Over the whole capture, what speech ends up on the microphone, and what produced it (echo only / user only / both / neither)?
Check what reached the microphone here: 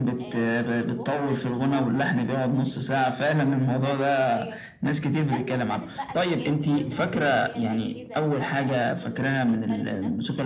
both